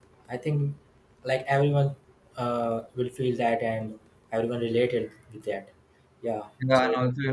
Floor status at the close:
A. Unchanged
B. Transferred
B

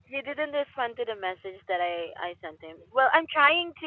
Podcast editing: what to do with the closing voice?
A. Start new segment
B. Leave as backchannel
B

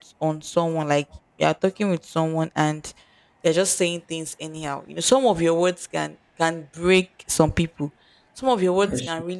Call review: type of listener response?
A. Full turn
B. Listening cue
B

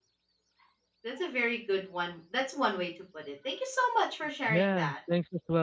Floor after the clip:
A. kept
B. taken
B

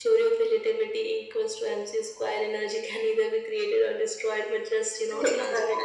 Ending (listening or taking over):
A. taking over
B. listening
B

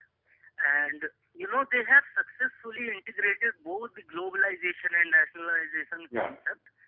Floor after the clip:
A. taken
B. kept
B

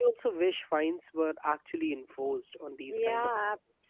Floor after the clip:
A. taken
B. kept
A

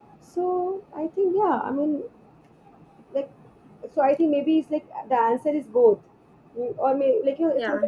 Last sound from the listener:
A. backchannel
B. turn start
A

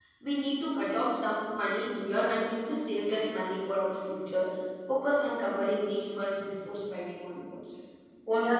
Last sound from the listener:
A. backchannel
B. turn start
B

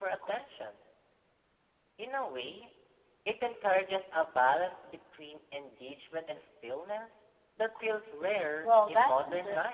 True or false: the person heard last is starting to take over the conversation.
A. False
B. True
B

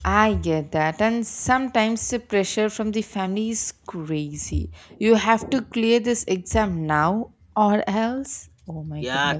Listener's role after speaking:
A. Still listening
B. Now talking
B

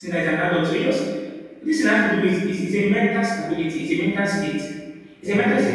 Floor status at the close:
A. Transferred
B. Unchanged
A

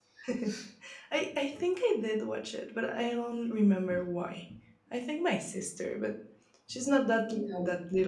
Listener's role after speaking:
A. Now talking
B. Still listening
B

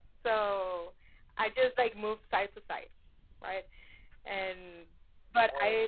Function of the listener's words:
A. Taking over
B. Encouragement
B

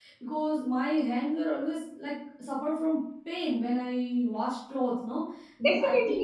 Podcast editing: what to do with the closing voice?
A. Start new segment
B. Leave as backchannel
A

